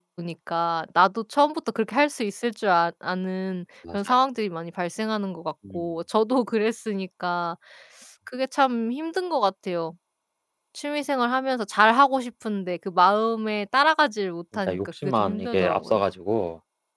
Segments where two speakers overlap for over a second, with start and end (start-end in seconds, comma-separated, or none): 14.5-16.0